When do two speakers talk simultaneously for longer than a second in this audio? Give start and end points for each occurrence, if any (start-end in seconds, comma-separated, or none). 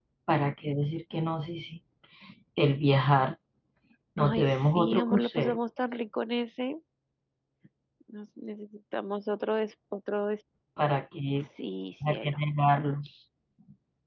4.2-5.6